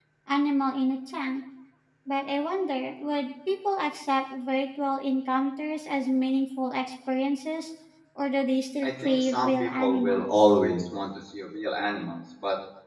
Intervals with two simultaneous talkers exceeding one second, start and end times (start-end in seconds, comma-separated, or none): 8.8-10.3